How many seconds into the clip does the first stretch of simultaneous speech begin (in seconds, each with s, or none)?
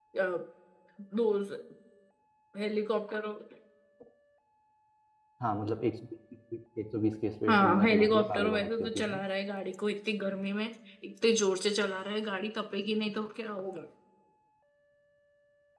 7.5 s